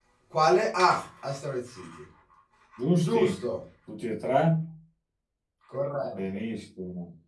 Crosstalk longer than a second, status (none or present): none